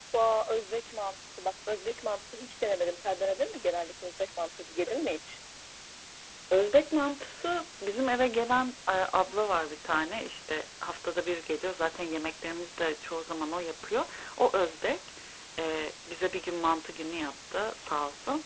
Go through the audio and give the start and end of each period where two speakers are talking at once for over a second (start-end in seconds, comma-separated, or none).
none